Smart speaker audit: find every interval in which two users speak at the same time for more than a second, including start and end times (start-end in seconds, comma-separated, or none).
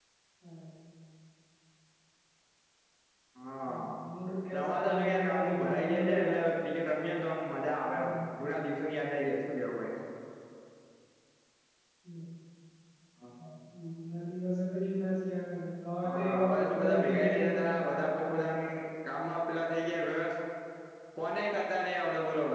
4.5-6.2, 16.0-18.5